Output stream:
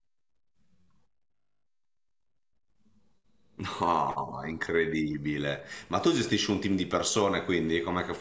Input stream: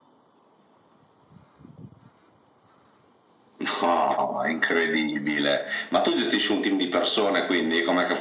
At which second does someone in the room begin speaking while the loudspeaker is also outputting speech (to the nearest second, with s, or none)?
none